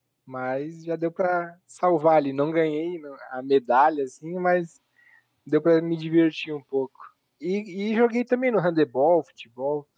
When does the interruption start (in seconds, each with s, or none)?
none